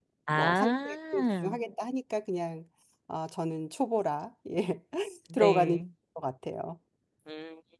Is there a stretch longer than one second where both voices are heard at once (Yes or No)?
Yes